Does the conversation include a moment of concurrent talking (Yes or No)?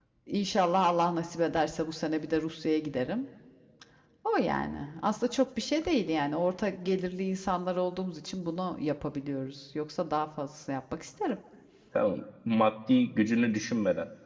No